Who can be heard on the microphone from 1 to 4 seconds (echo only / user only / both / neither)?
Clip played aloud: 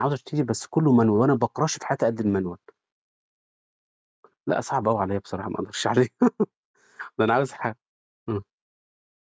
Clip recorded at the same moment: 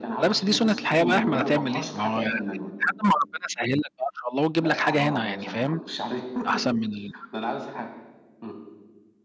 both